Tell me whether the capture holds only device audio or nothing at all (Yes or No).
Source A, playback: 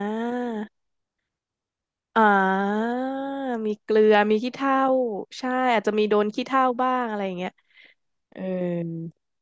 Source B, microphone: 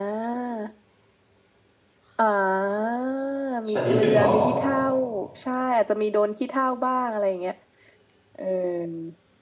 No